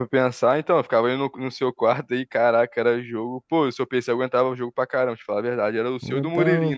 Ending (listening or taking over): taking over